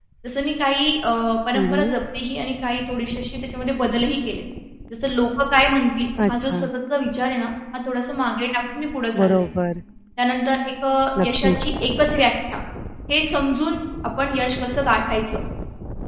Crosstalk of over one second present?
No

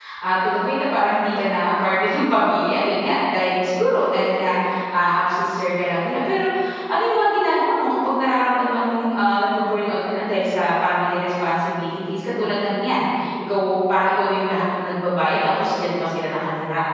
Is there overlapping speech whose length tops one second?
No

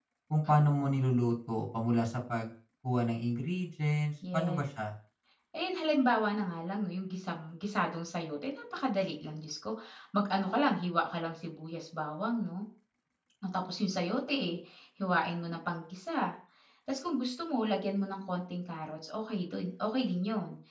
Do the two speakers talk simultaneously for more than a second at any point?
No

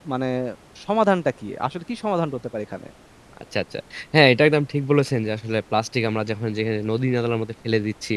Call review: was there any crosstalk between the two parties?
No

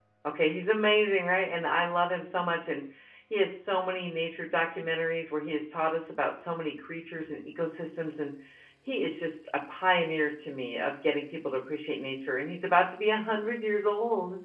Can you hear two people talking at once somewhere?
No

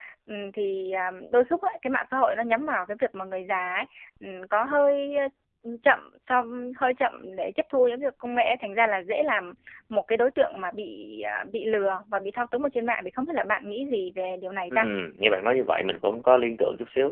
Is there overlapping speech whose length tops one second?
No

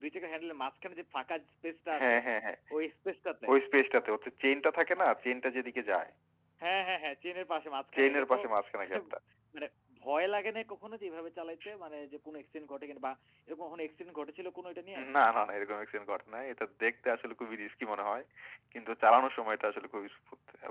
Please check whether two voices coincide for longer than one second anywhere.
No

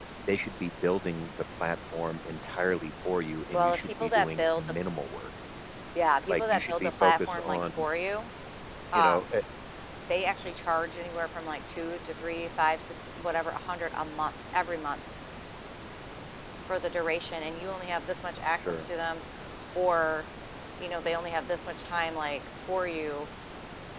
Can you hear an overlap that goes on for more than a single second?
Yes, from 3.5 s

